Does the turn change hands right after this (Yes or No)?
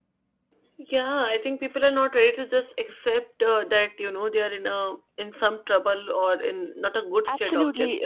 Yes